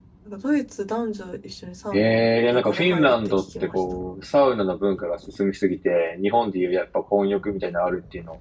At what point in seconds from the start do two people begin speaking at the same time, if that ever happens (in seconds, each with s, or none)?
1.9 s